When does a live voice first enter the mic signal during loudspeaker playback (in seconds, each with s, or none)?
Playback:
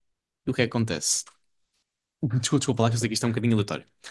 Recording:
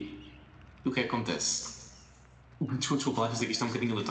none